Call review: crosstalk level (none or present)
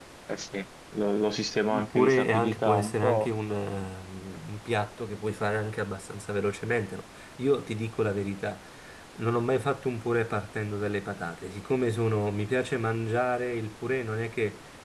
present